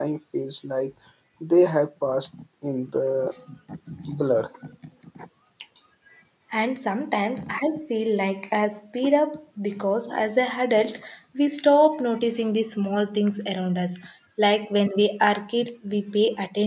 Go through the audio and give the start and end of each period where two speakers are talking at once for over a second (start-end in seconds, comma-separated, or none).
none